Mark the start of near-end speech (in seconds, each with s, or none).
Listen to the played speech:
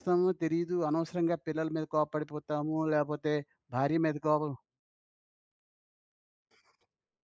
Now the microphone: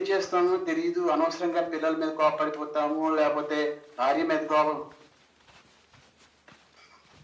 none